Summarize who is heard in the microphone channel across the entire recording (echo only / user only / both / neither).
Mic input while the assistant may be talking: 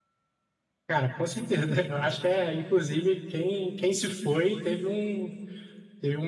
echo only